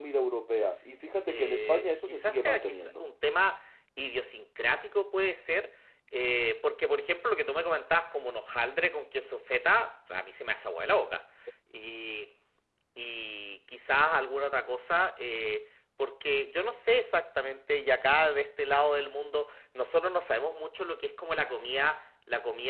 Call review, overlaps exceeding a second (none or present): present